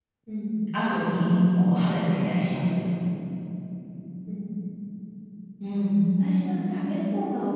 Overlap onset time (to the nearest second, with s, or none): none